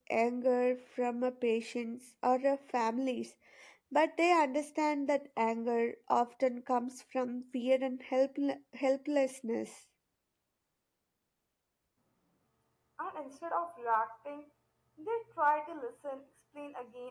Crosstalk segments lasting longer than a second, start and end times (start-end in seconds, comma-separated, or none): none